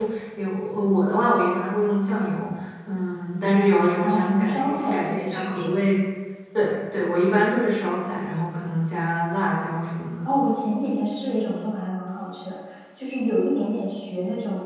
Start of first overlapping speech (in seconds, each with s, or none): 4.0 s